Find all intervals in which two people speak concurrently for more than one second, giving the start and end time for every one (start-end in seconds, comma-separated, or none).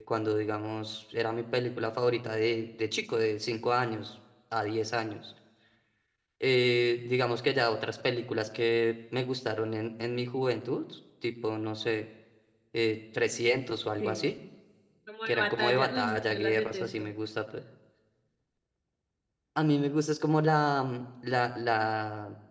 15.3-17.1